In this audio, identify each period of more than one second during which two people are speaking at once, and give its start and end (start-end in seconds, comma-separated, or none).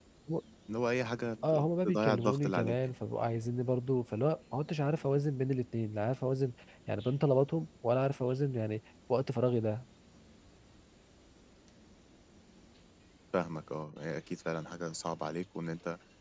1.5-2.9